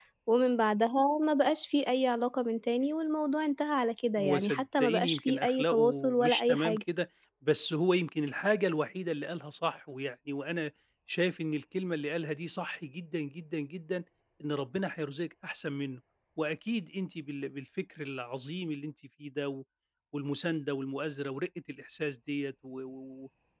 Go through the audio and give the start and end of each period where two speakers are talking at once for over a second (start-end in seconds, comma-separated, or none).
4.2-6.8